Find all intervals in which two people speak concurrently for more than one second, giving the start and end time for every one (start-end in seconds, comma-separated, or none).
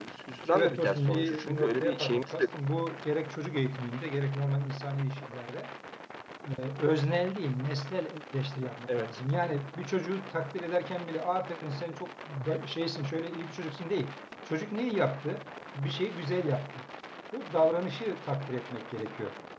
0.5-2.5